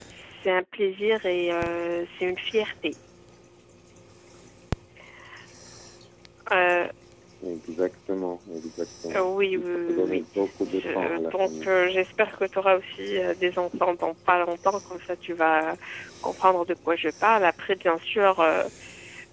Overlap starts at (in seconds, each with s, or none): 9.1 s